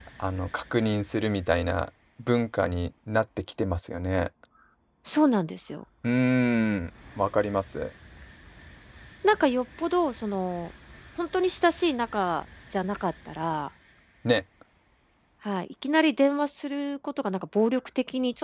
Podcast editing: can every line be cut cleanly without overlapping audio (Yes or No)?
Yes